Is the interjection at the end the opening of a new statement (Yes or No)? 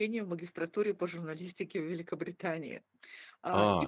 Yes